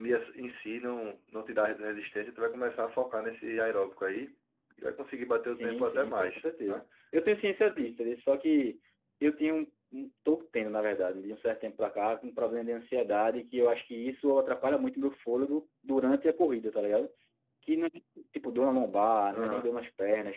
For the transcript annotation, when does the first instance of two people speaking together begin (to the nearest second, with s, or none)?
5 s